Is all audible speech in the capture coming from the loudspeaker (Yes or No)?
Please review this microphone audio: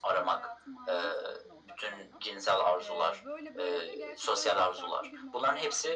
No